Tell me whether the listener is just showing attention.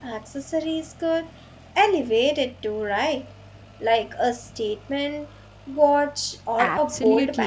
No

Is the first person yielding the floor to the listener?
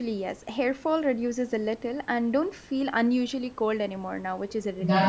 Yes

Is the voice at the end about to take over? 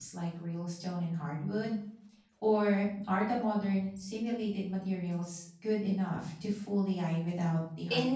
Yes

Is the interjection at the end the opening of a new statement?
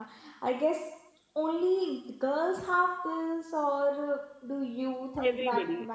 Yes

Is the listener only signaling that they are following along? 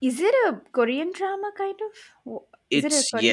No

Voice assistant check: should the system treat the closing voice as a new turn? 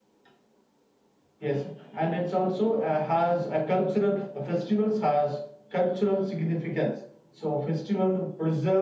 No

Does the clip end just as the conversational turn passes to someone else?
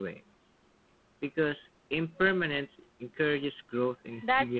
Yes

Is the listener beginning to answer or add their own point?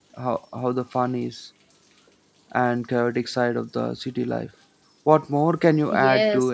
Yes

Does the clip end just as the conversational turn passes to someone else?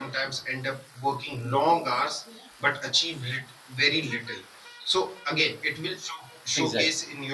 No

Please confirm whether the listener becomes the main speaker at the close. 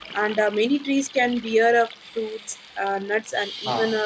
No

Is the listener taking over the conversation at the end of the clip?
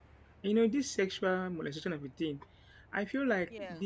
No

